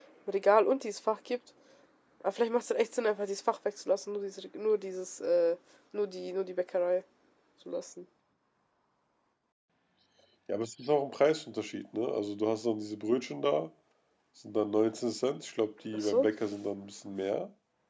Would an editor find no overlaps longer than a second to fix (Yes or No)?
Yes